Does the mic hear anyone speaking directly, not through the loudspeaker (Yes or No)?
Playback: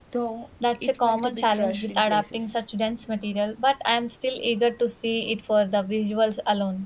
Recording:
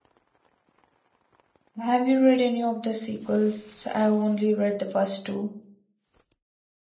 Yes